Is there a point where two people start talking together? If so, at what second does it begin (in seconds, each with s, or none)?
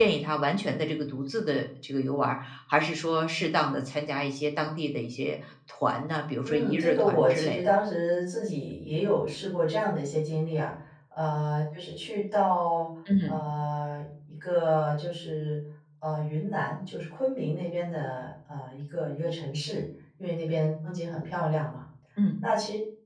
6.4 s